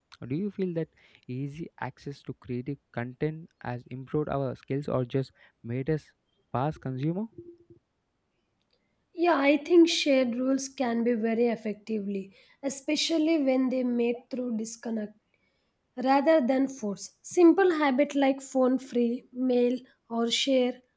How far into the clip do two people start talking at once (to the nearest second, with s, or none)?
none